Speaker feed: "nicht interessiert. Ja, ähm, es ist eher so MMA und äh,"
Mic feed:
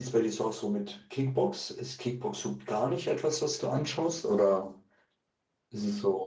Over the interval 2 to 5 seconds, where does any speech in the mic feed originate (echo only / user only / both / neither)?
user only